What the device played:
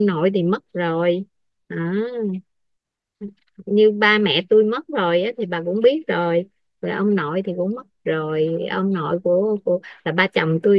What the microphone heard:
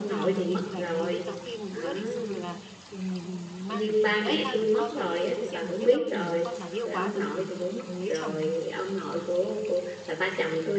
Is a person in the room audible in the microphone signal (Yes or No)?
Yes